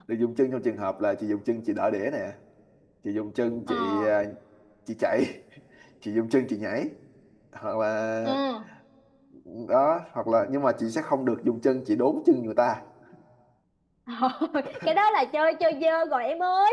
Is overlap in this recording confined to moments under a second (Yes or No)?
Yes